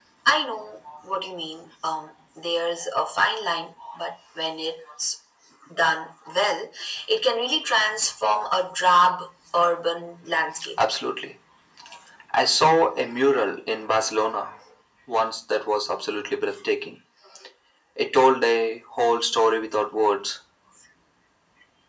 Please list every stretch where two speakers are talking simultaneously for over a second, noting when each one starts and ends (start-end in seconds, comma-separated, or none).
none